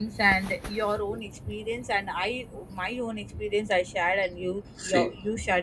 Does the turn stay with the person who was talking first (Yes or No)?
Yes